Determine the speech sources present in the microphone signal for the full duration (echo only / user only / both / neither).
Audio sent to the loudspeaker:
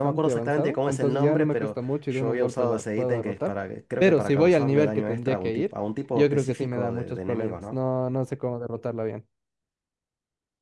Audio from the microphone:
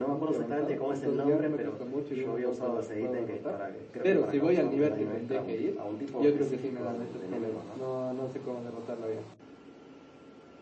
echo only